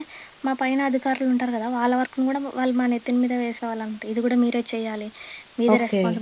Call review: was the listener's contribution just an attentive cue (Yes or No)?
Yes